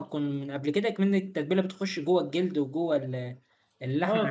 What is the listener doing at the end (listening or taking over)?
taking over